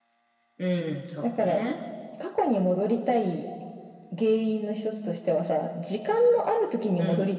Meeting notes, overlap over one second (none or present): none